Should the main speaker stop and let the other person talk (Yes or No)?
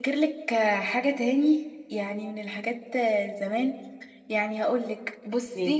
No